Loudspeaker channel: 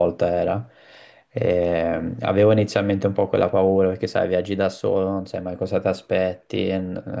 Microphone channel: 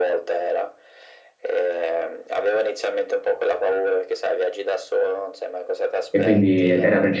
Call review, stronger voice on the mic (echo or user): user